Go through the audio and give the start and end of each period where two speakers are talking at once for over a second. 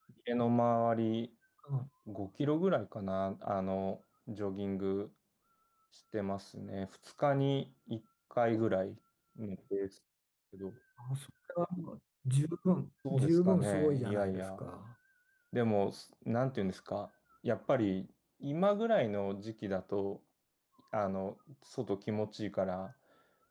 13.1-14.6

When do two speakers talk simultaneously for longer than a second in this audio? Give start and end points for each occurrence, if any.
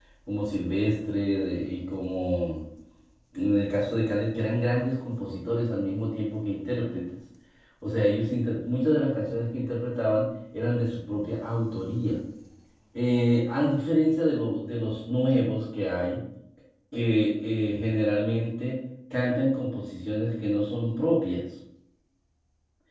none

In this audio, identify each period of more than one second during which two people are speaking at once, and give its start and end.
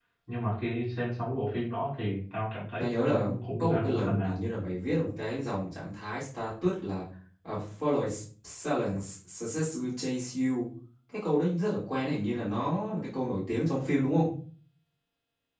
2.8-4.4

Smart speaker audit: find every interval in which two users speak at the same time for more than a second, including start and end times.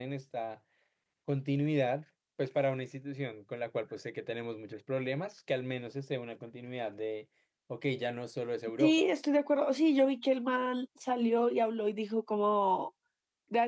none

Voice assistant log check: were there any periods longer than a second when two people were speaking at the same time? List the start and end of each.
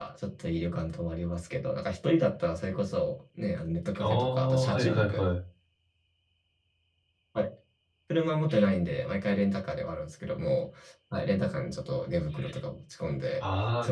4.0-5.2

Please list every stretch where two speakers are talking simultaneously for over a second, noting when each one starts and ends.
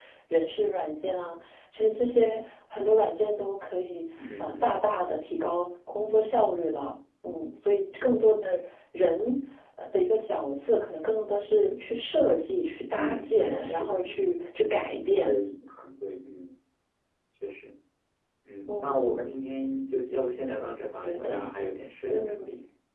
12.9-14.5

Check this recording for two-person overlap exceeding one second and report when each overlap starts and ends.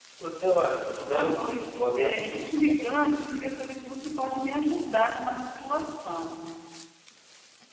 1.0-2.4

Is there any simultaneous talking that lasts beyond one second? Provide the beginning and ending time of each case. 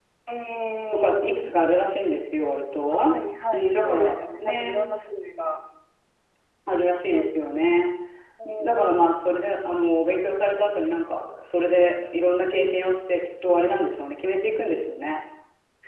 3.5-4.8

